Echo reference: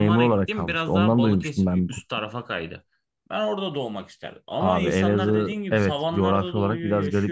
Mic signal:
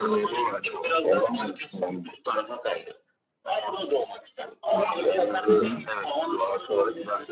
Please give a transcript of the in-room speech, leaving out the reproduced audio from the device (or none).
Hı hı, hı,